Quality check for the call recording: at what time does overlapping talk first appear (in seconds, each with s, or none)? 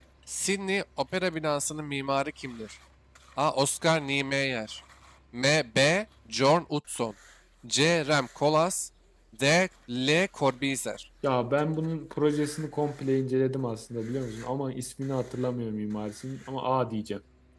none